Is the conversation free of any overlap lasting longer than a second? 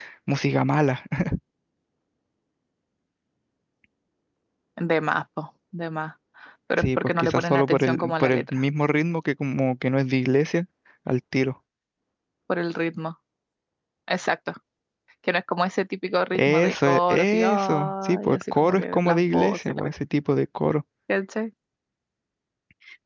No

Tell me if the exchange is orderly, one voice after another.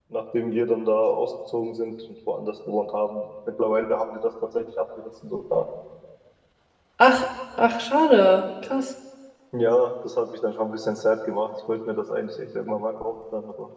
Yes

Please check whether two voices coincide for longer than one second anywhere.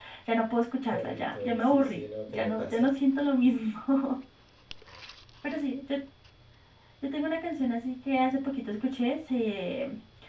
Yes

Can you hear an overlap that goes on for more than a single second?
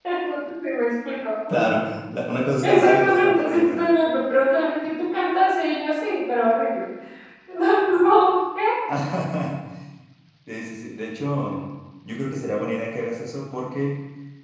Yes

